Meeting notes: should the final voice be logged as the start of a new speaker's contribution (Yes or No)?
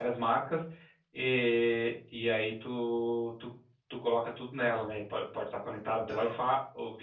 No